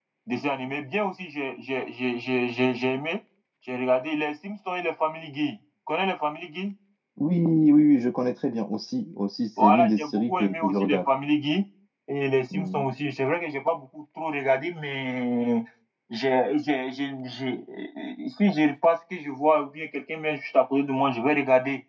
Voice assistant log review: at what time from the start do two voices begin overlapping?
9.6 s

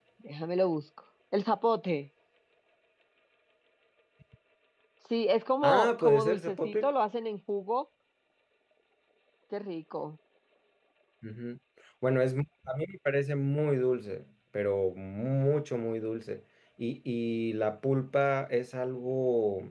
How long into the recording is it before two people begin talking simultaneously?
5.6 s

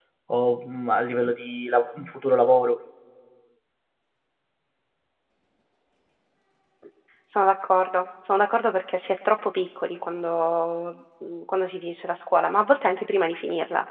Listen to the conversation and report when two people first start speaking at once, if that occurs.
none

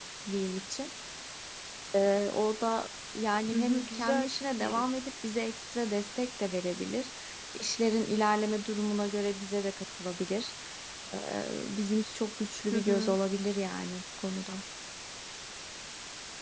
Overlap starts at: 3.5 s

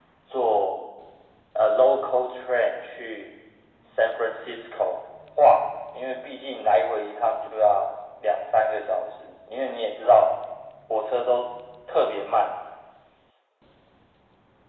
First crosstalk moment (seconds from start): none

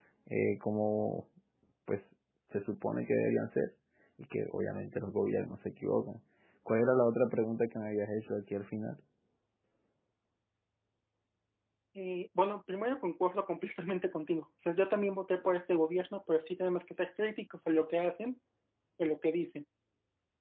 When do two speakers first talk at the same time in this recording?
none

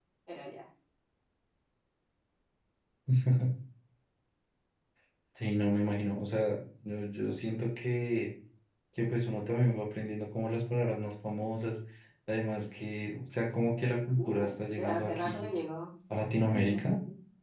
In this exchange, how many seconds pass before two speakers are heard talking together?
14.2 s

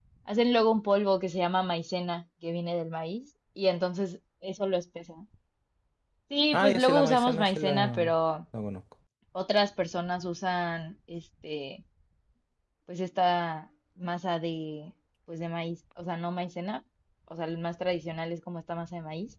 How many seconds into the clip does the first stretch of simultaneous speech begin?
6.5 s

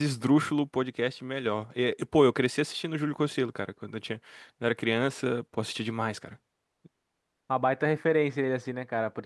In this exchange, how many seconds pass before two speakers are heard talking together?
none

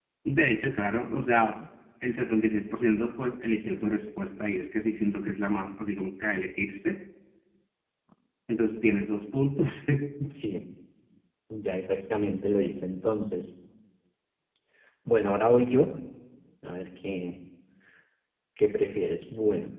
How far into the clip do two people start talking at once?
none

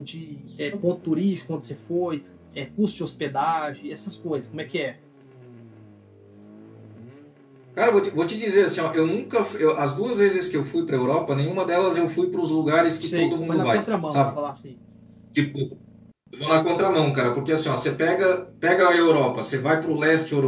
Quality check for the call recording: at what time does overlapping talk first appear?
13.0 s

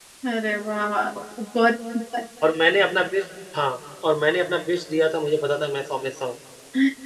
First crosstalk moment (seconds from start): none

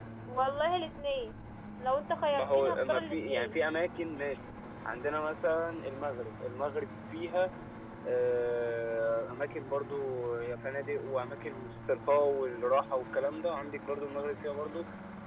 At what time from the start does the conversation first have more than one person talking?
2.3 s

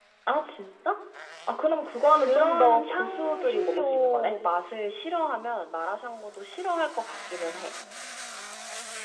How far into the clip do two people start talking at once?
2.2 s

